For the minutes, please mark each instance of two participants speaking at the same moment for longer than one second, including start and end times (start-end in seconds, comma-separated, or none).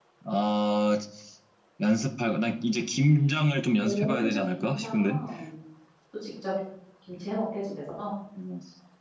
3.8-5.2